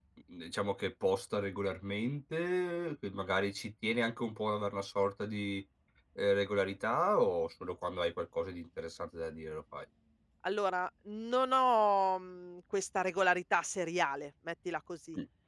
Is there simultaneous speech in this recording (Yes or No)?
No